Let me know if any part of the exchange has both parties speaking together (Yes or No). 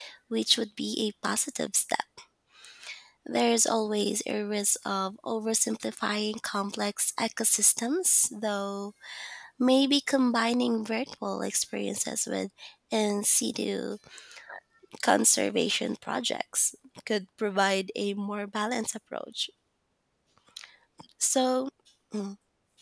No